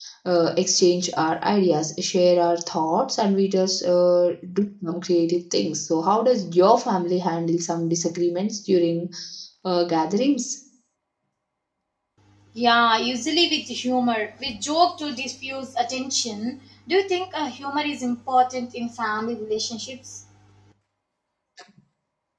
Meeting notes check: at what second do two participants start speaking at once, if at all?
none

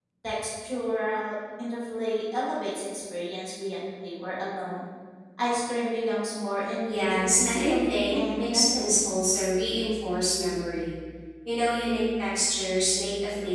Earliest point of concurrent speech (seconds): 7 s

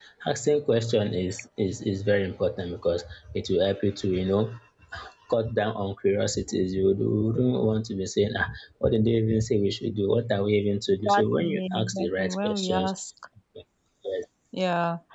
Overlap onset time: 11 s

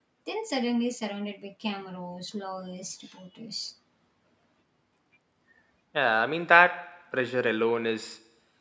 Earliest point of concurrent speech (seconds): none

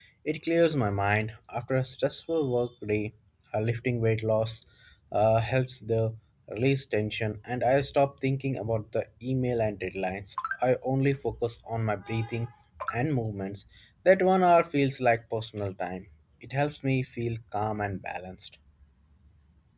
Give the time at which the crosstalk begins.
none

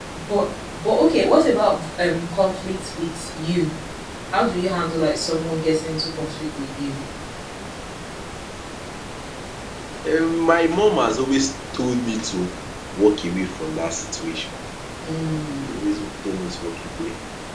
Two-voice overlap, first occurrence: none

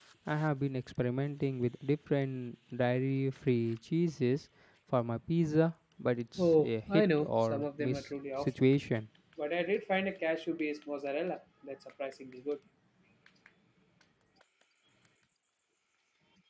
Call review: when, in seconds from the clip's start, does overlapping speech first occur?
6 s

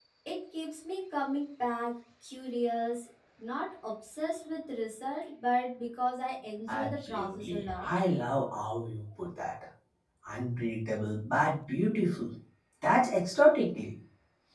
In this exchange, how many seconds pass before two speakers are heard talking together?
7 s

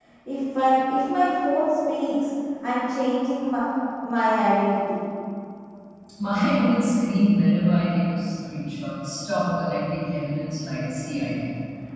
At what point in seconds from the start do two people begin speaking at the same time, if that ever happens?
none

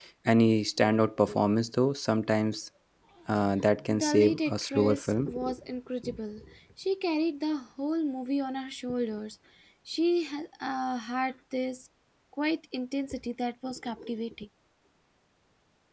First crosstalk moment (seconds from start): 4 s

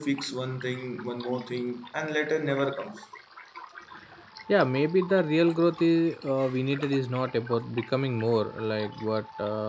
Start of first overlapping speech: none

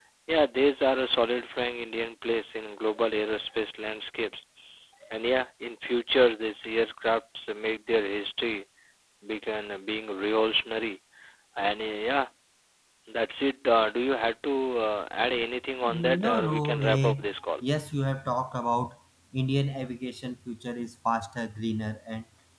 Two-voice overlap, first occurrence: 16 s

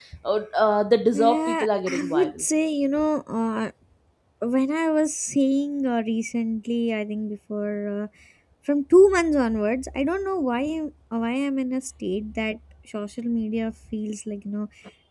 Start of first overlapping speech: 1 s

